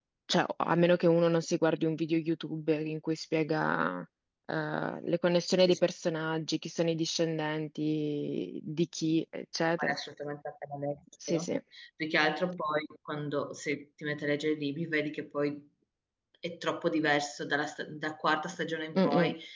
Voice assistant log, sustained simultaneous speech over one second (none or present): none